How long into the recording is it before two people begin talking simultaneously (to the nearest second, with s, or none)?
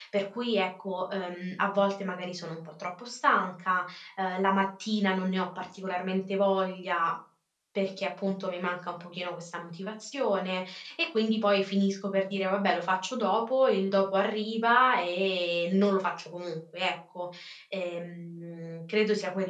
none